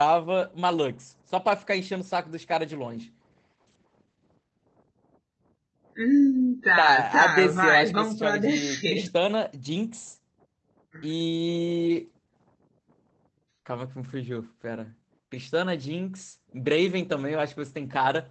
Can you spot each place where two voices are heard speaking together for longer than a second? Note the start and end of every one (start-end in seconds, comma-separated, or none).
6.8-9.1